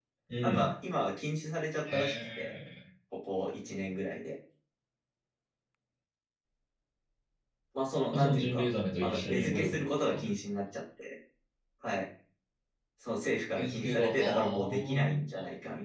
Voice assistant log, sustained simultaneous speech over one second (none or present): present